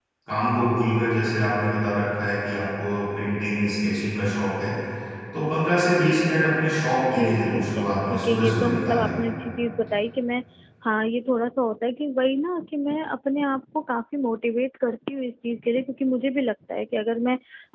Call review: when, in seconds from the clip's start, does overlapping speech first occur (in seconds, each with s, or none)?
7.0 s